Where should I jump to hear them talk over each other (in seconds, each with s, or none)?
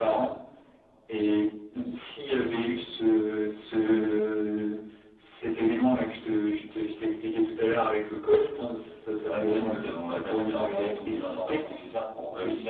9.2 s